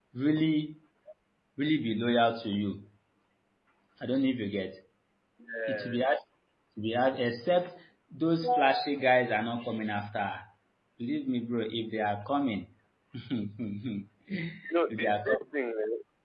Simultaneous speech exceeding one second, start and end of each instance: none

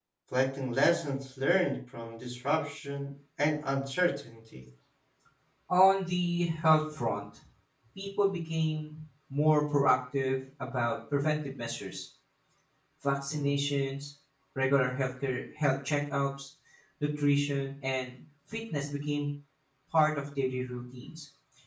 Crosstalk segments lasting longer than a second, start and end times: none

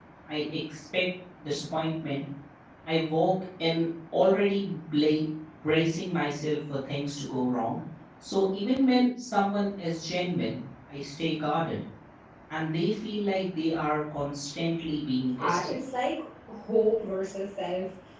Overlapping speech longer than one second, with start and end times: none

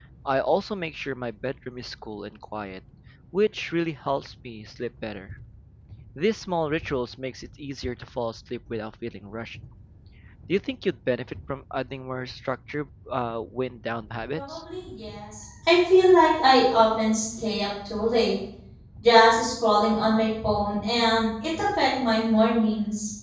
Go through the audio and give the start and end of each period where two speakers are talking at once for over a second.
none

